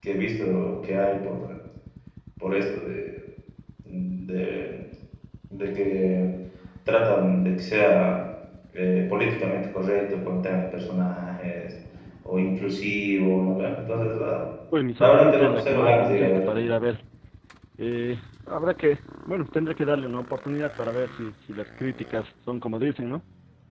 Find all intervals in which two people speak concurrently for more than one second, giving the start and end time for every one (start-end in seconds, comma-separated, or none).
15.0-16.4